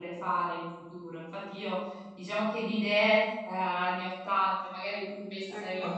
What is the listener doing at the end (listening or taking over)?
listening